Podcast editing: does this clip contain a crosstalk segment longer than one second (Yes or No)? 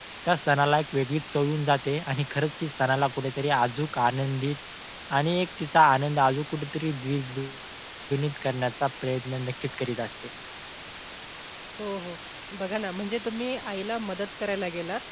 No